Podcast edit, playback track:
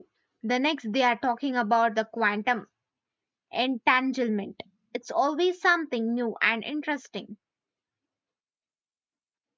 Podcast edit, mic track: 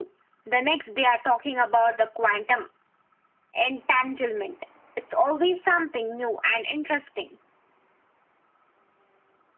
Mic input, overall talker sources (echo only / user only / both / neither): echo only